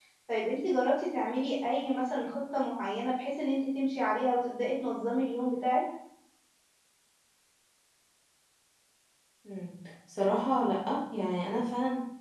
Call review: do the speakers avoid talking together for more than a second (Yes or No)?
Yes